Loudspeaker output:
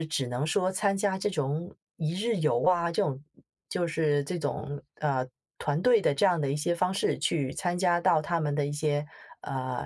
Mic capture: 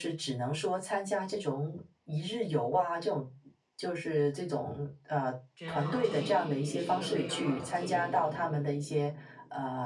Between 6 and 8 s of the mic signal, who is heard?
both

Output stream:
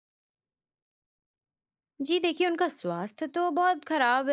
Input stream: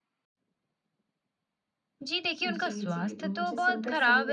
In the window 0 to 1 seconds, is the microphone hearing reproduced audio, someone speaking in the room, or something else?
neither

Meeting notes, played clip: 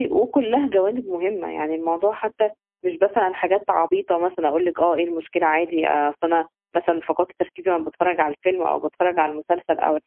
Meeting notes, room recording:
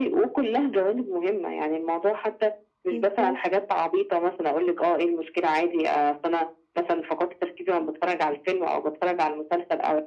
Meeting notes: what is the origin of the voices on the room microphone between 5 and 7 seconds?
echo only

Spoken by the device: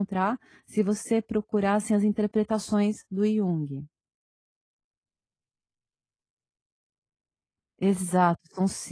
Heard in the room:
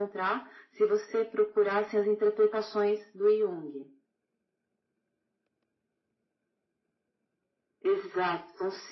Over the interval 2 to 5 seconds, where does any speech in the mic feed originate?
echo only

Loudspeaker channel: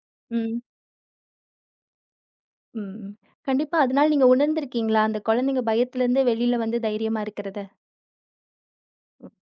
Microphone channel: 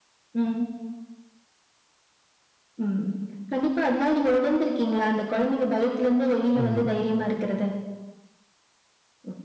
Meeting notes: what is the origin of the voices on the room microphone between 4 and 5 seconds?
echo only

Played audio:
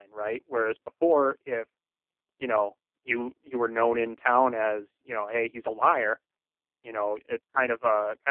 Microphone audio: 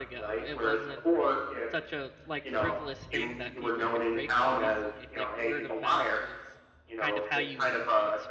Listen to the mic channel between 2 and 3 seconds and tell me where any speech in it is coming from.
both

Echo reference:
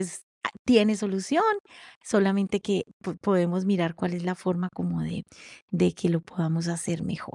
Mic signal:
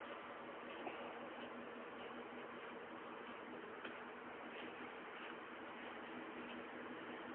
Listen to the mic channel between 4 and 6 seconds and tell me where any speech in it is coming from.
neither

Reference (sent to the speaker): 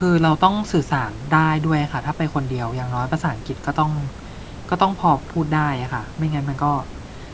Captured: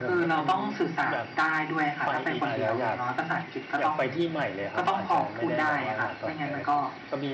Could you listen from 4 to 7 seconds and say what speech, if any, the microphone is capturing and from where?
both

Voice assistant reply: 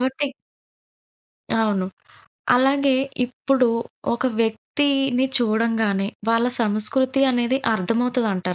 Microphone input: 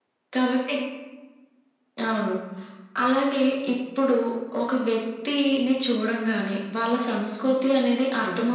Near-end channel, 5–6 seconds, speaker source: echo only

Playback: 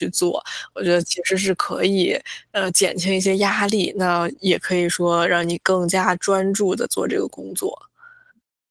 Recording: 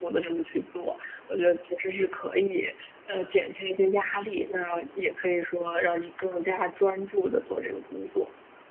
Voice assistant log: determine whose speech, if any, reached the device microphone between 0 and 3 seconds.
echo only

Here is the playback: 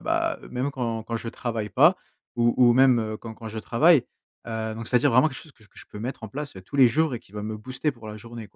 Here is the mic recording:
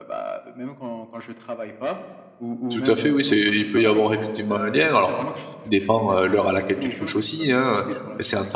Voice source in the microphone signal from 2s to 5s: both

